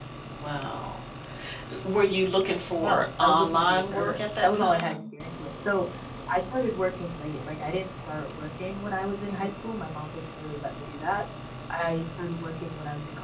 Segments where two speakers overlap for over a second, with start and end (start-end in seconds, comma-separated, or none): 2.8-5.0